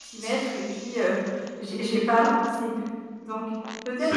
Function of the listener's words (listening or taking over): listening